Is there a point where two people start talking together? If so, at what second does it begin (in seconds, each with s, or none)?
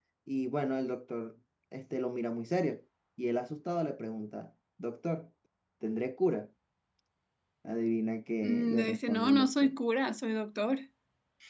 8.4 s